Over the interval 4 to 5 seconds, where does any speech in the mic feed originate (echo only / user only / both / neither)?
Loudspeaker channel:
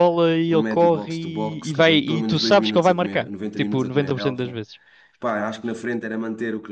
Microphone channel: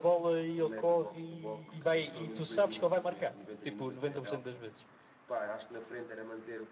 echo only